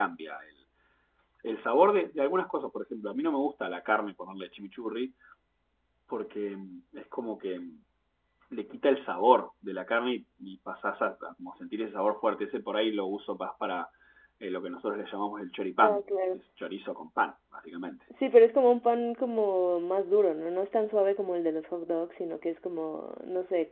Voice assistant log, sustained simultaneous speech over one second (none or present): none